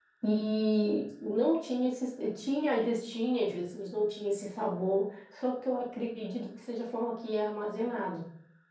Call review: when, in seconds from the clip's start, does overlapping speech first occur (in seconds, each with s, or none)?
none